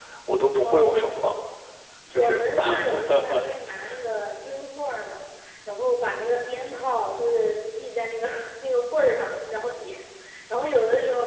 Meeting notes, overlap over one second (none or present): present